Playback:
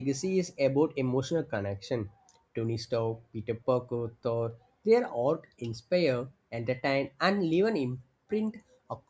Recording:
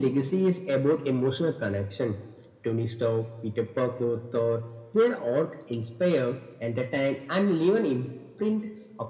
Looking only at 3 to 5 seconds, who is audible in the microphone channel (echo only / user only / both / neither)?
echo only